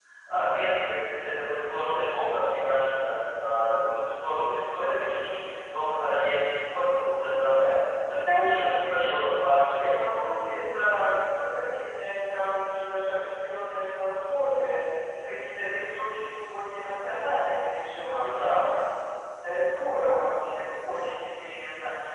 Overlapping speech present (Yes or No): Yes